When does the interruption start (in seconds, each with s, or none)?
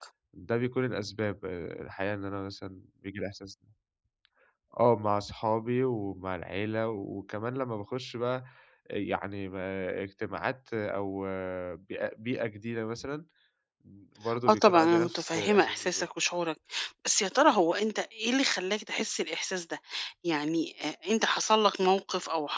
14.5 s